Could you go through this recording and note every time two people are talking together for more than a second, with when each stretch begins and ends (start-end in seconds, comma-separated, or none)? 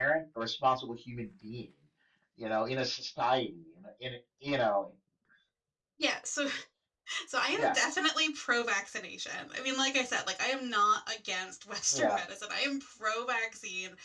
none